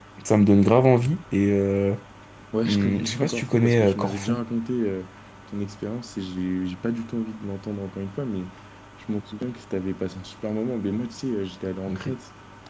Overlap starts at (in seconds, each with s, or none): 2.6 s